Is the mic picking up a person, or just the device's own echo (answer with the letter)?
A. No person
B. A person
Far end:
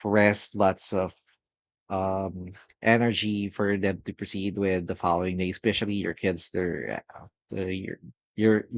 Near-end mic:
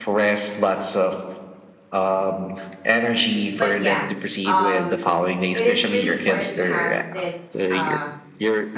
B